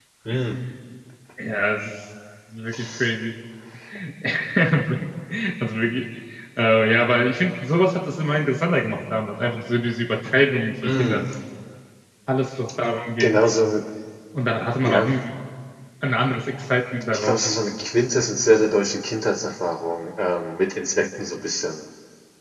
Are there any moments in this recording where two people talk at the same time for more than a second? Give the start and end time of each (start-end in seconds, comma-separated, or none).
none